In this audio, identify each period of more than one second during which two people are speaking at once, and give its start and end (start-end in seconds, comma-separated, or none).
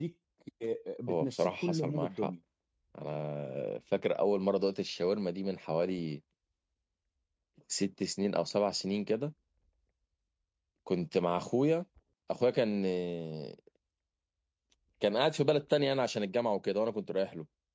1.1-2.3